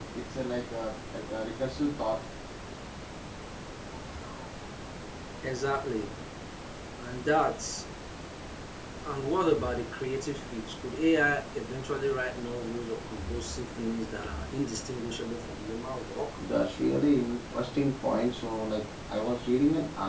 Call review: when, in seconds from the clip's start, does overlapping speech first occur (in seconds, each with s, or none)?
none